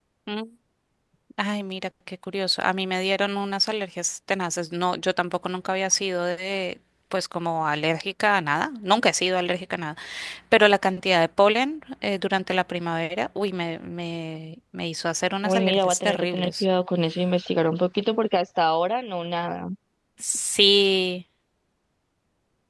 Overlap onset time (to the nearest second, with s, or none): 15 s